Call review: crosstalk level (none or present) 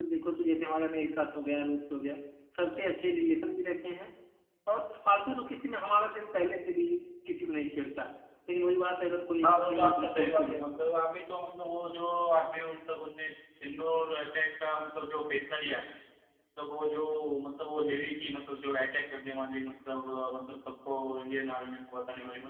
present